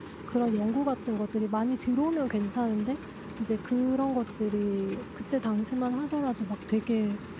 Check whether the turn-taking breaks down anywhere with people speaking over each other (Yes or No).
No